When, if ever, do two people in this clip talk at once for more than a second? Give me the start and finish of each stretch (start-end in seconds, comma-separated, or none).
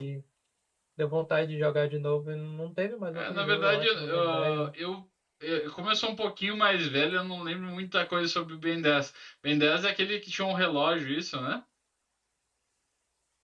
3.1-4.7